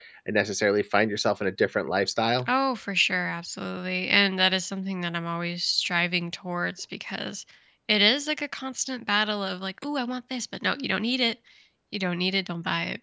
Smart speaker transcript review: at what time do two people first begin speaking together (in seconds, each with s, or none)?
none